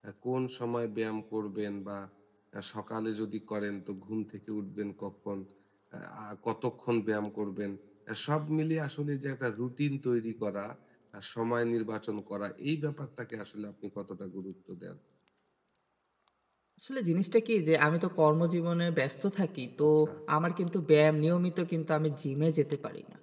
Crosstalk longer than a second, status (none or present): none